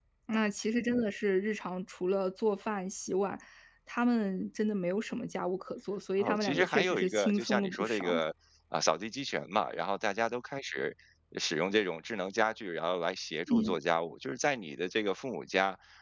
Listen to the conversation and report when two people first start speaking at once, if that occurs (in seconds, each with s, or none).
6.2 s